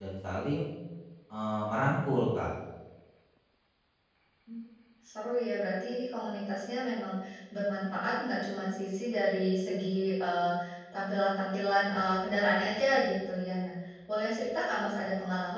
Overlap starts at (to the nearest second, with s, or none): none